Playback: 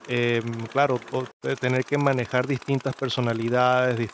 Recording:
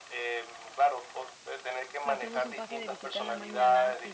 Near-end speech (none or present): present